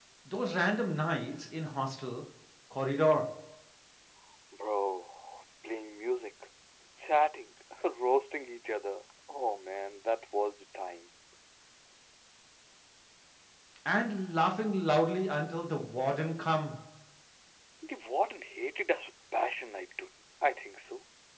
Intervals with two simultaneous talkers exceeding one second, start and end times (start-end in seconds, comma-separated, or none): none